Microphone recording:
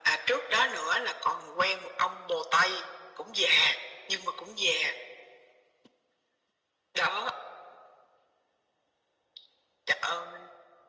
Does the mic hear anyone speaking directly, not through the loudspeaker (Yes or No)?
No